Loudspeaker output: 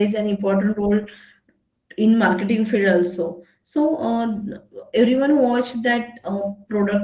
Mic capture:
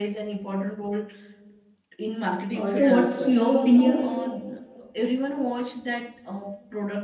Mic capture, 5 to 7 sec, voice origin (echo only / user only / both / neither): echo only